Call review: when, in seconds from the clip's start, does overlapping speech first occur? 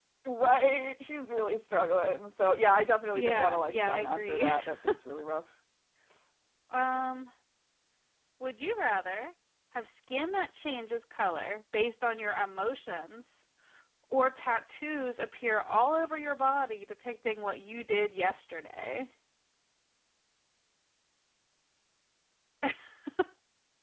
3 s

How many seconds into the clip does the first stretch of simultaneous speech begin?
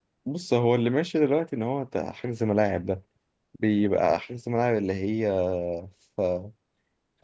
none

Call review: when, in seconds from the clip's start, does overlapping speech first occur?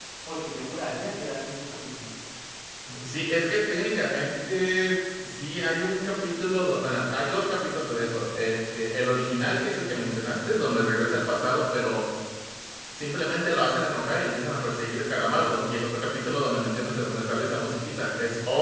none

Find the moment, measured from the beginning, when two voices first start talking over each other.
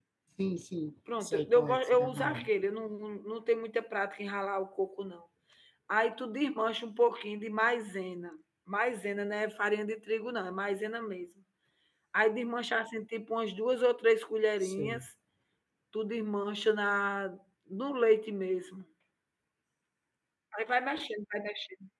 1 s

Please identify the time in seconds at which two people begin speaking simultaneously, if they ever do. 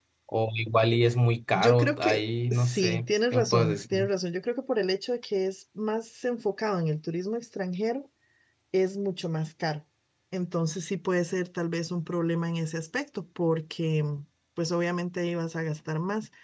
2 s

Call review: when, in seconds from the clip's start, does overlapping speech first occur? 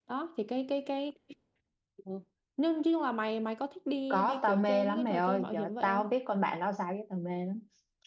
4 s

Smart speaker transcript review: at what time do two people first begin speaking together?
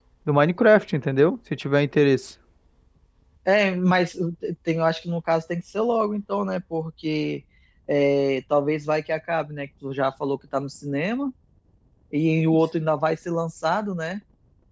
none

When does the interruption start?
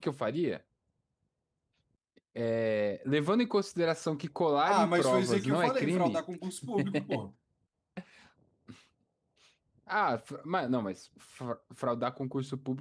5 s

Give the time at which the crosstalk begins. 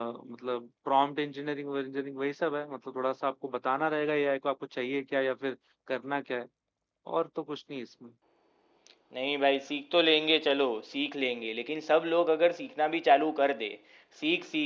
none

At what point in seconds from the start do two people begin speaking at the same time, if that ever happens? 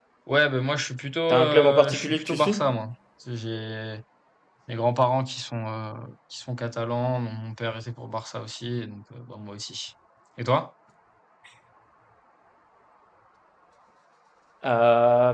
1 s

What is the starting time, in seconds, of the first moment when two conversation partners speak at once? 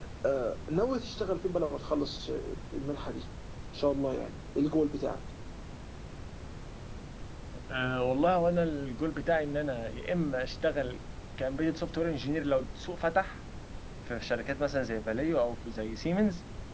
none

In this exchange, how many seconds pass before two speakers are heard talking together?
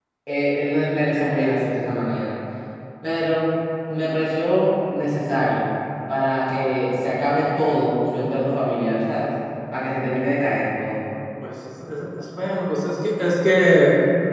none

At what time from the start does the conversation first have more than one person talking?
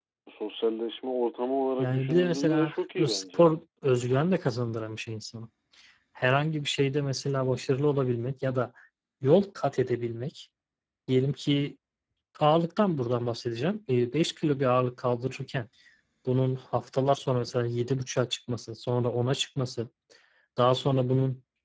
2 s

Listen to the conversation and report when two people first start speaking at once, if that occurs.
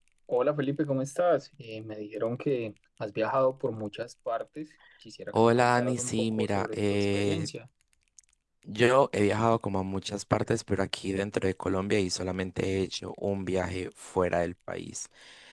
5 s

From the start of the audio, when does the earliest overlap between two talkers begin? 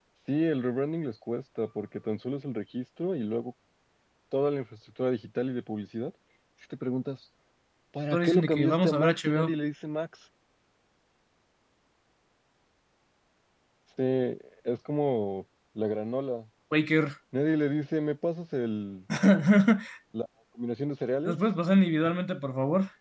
8 s

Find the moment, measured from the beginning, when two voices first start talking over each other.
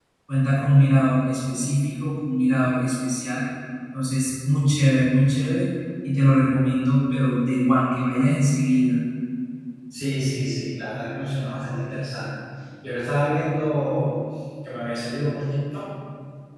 none

